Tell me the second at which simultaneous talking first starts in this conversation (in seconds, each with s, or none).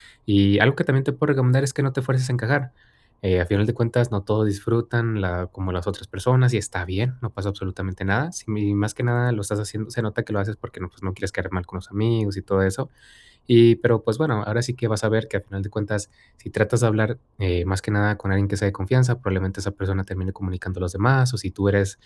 none